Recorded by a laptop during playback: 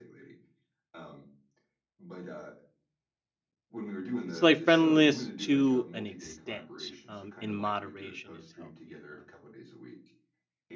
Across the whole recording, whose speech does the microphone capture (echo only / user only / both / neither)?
both